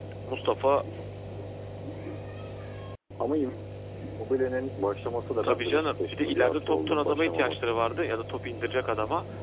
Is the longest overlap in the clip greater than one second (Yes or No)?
Yes